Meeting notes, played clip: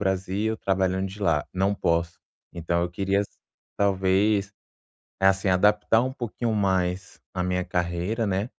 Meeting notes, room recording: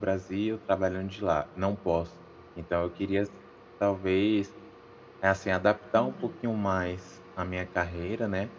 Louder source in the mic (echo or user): echo